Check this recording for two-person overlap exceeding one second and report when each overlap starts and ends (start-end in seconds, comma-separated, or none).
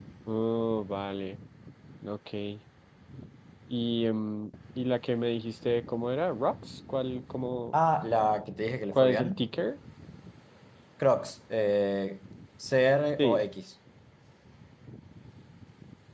none